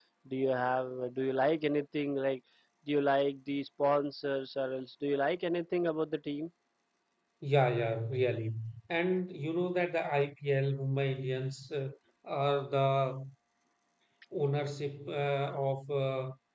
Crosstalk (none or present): none